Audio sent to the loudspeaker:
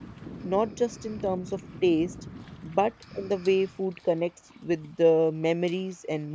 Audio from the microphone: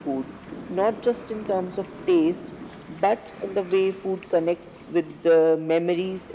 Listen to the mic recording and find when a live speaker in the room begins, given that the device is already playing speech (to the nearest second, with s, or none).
none